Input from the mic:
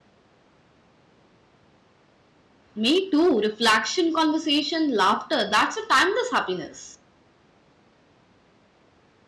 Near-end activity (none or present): present